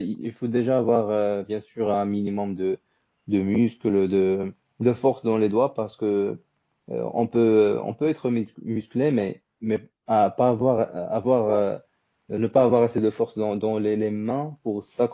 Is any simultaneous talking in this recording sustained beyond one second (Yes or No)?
No